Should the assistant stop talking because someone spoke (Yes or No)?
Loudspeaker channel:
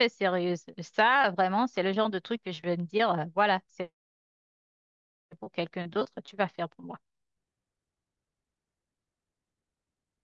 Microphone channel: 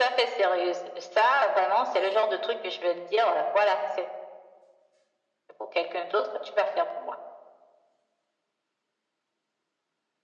No